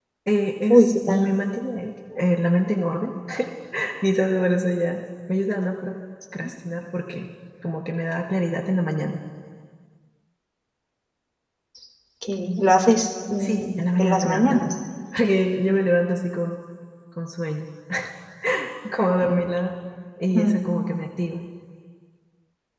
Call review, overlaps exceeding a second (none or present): present